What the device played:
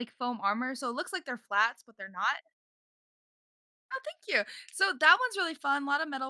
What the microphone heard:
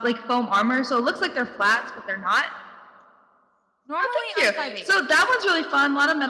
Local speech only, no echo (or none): Normally, I'm 5'8".